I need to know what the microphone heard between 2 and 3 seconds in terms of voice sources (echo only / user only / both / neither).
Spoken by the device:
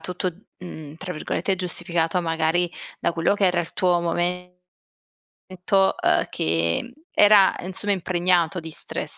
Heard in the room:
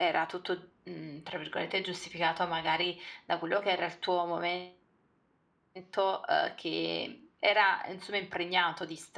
echo only